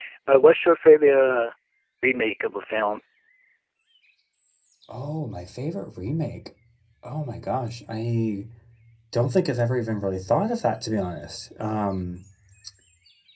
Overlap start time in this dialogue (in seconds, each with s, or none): none